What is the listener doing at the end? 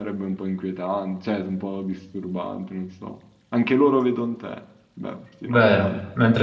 taking over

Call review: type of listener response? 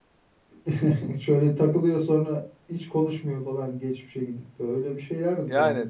taking over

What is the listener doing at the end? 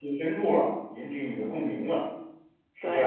taking over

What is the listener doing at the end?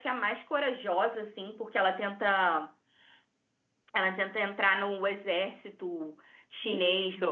taking over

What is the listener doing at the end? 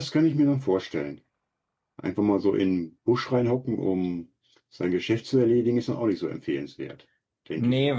taking over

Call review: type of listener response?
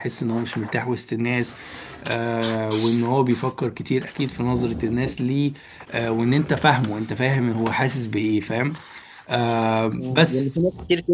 taking over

